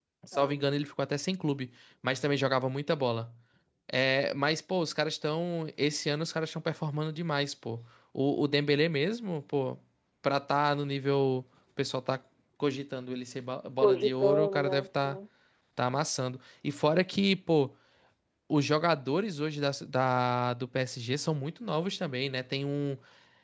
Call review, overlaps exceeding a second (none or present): present